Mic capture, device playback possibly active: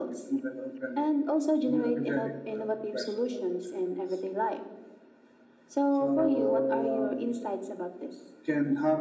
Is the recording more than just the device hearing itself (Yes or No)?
No